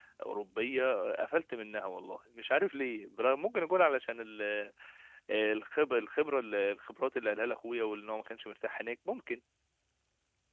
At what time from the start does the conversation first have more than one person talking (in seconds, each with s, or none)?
none